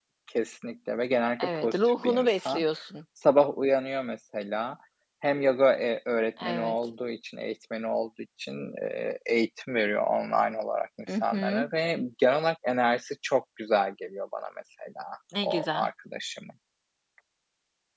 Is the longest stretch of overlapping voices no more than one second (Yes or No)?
No